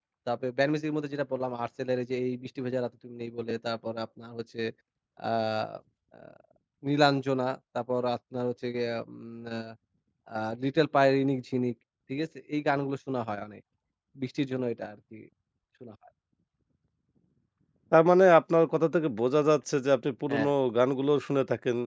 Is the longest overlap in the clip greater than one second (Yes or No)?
No